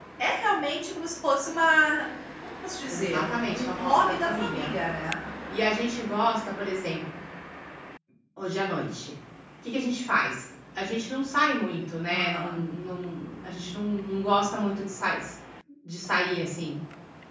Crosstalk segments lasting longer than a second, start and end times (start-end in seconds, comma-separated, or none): 2.9-4.7